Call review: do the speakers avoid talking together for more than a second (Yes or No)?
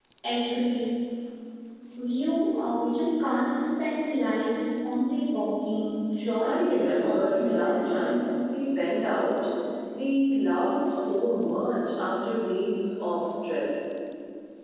No